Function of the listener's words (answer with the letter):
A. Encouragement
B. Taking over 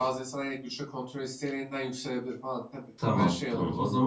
B